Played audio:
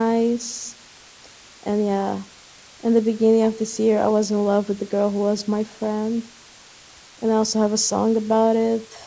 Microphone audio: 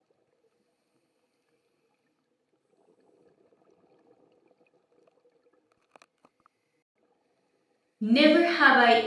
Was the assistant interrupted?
Yes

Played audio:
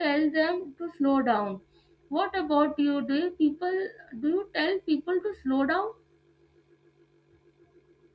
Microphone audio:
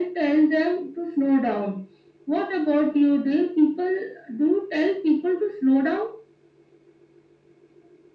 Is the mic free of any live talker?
Yes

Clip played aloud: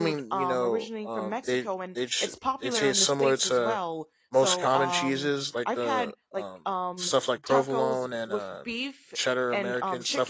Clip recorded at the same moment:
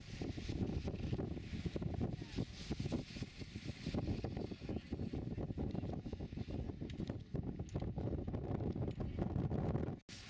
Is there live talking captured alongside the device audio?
No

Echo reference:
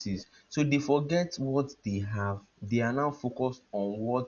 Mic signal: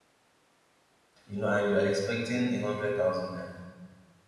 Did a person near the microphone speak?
Yes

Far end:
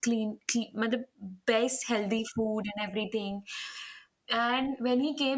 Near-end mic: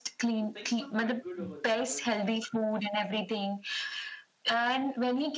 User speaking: Yes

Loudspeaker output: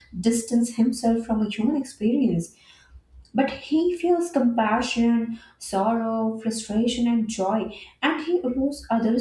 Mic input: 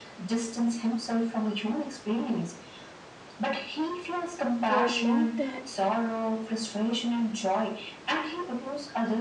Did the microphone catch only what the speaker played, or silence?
No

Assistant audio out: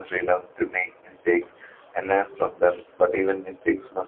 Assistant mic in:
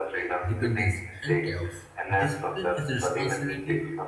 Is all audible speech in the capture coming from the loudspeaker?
No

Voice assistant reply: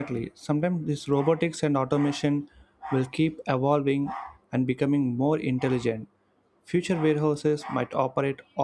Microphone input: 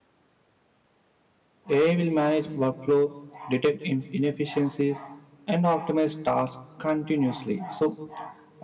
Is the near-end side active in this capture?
Yes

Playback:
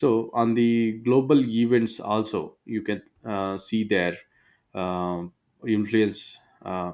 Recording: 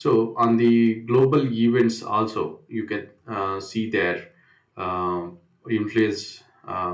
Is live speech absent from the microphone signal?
Yes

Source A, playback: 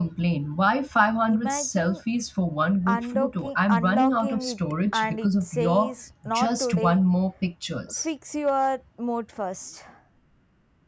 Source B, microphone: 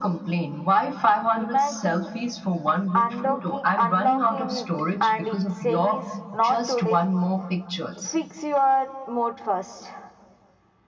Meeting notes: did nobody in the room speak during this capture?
Yes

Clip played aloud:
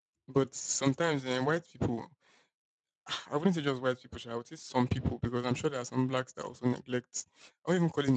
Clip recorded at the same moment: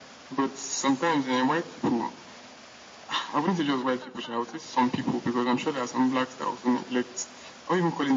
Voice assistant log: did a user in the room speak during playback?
No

